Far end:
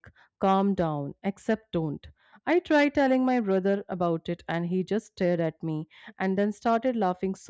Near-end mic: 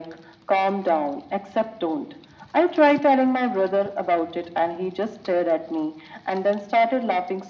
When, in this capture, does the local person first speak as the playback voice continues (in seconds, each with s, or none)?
none